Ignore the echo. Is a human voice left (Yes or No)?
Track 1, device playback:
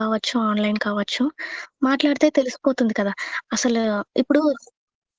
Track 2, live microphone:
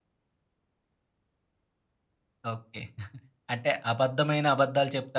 Yes